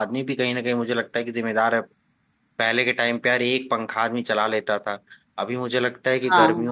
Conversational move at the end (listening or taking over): listening